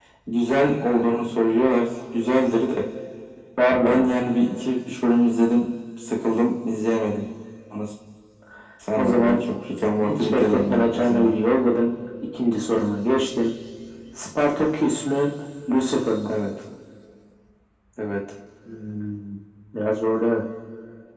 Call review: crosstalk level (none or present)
present